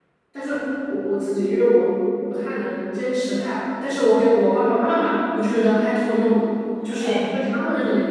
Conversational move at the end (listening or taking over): listening